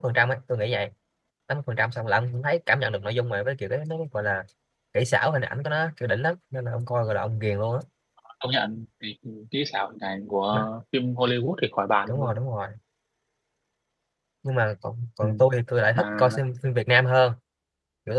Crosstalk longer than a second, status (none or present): none